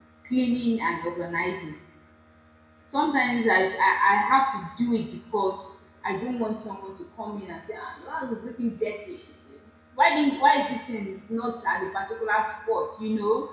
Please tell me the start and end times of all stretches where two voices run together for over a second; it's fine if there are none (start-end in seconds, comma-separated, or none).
none